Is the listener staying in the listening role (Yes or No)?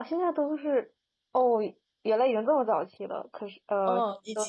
No